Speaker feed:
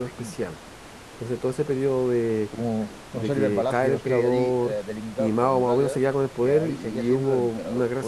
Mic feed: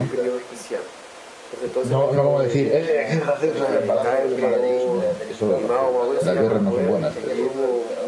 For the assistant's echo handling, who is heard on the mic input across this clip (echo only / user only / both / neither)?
both